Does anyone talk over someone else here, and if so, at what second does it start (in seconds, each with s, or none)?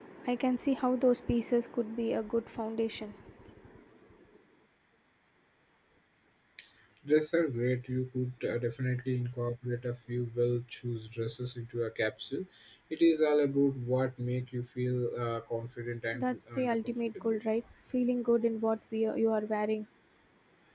16.1 s